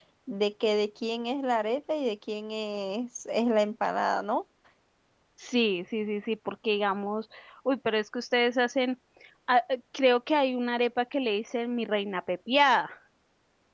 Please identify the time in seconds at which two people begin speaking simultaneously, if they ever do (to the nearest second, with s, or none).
none